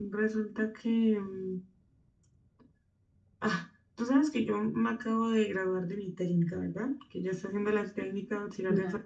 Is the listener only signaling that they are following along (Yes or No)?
Yes